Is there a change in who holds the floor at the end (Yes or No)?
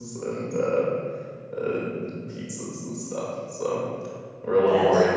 No